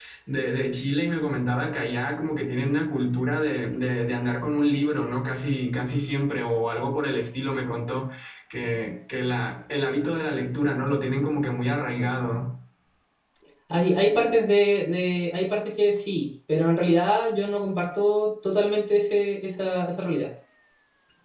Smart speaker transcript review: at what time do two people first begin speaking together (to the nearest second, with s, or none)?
none